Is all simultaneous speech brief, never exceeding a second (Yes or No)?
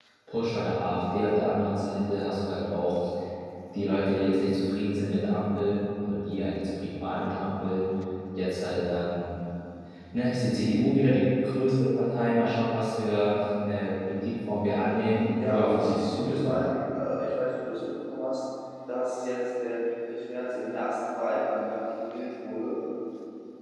No